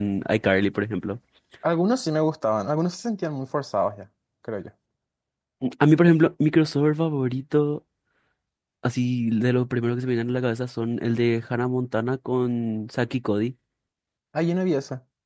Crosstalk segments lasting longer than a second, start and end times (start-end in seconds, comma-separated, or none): none